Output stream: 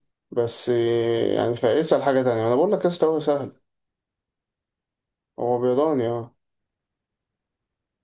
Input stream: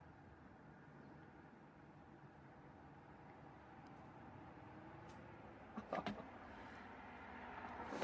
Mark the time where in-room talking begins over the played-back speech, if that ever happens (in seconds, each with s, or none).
none